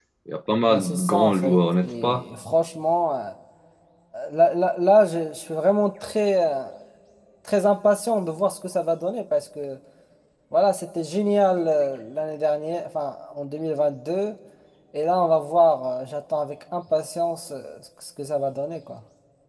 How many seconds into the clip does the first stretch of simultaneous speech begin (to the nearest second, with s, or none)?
1 s